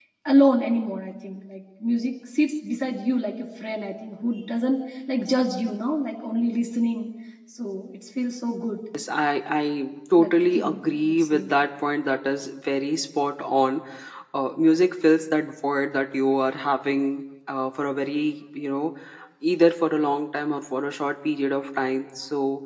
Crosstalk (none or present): present